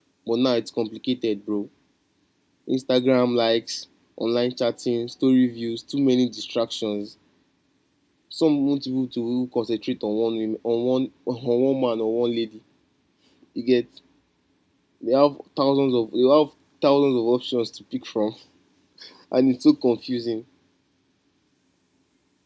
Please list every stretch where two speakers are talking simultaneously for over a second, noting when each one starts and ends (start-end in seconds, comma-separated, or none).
none